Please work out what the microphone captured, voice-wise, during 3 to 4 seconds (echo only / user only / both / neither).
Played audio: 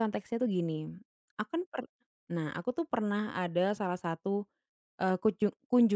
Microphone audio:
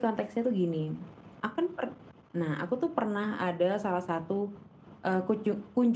echo only